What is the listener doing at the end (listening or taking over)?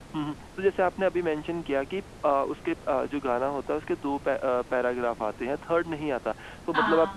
listening